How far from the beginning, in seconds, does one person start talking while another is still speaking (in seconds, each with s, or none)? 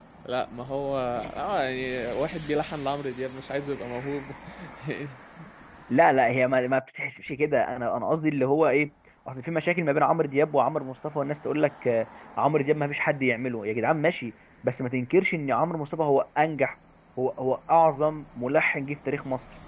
none